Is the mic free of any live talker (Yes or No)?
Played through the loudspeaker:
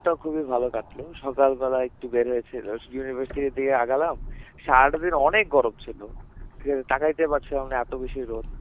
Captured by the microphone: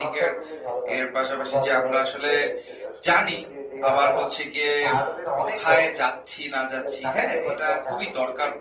No